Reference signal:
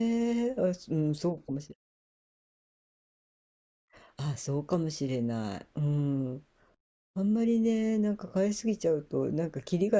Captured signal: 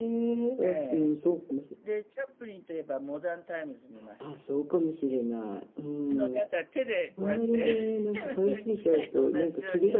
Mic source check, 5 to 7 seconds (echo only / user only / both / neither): both